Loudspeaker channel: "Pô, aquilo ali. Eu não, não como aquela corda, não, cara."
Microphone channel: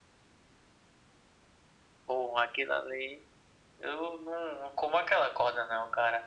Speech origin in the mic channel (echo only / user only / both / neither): echo only